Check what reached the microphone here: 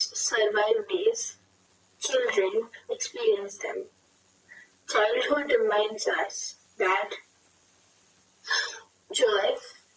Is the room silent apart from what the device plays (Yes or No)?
Yes